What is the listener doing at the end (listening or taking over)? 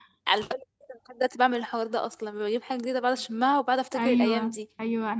taking over